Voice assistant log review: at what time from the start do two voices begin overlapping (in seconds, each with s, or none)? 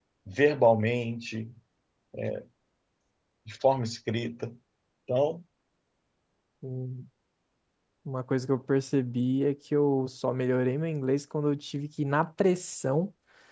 none